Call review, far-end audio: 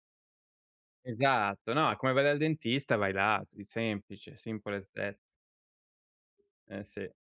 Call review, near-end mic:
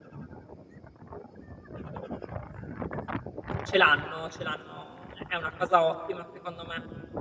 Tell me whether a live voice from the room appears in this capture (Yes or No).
Yes